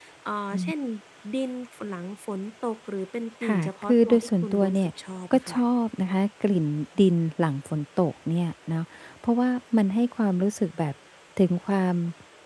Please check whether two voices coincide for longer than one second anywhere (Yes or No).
Yes